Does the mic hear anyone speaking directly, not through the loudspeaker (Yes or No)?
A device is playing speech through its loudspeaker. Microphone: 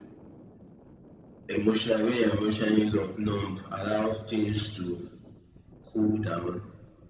No